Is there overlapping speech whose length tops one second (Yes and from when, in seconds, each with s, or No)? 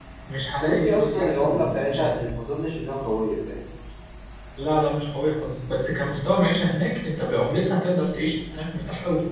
Yes, from 0.6 s